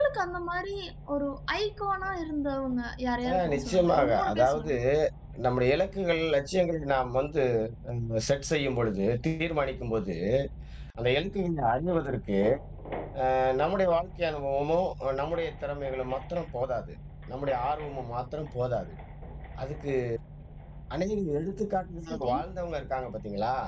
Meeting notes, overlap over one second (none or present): present